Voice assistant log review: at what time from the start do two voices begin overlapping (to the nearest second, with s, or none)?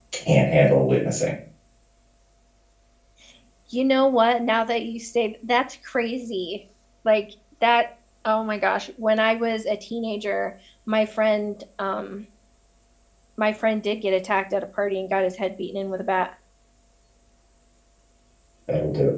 none